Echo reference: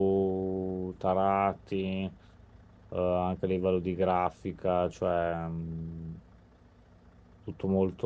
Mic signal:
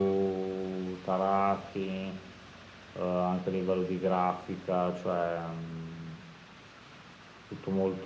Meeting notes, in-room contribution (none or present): none